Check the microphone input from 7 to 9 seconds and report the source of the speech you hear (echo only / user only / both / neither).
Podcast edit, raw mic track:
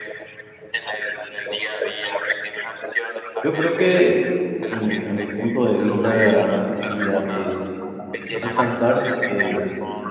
both